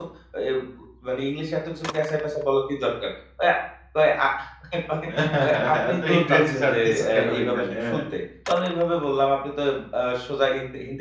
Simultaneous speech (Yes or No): Yes